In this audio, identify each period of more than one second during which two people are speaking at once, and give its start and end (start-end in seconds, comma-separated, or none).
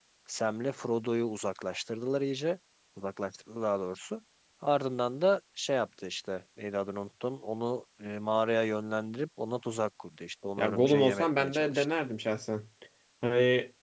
10.6-11.9